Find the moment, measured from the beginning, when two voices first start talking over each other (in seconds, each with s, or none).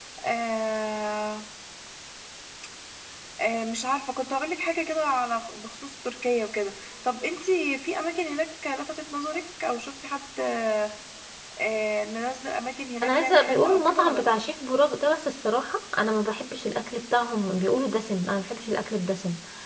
13.0 s